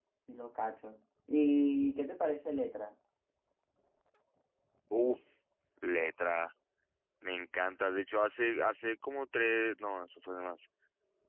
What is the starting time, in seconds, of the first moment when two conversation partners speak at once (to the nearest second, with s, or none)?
none